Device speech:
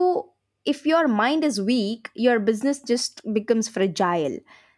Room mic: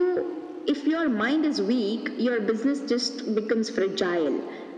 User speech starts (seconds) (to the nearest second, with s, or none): none